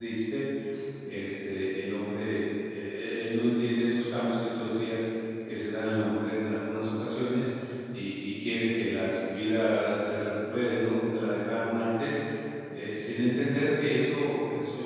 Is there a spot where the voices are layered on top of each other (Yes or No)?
No